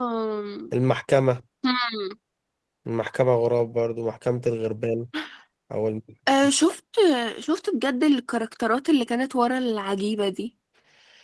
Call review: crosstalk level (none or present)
none